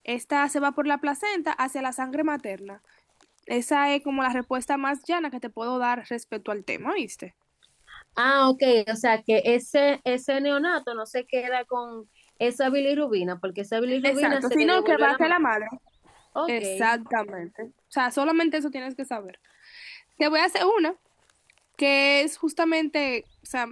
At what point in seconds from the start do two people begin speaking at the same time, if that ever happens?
14.0 s

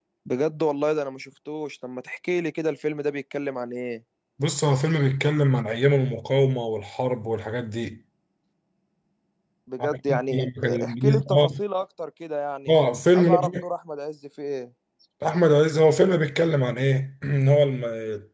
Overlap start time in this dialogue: 9.8 s

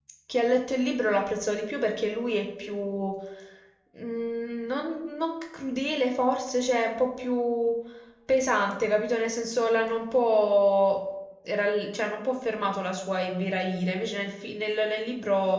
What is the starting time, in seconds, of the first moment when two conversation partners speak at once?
none

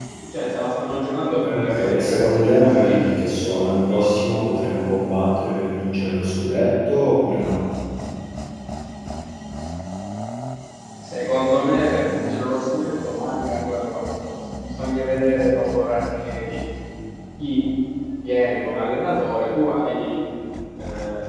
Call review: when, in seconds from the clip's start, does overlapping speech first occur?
1.5 s

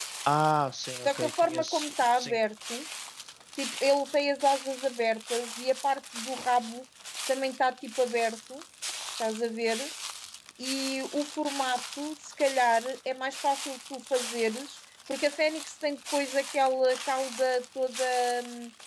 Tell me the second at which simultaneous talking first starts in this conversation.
1.1 s

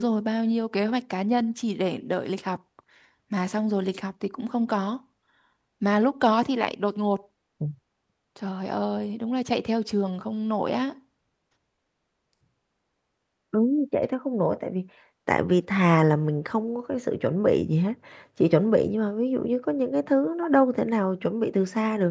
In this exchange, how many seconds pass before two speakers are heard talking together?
none

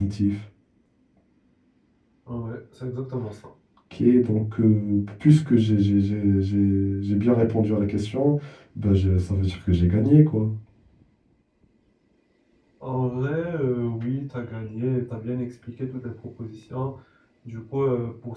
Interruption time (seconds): none

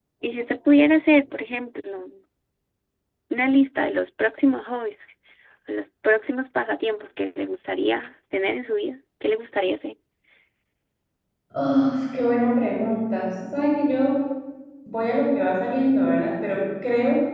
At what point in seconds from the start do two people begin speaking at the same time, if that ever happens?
none

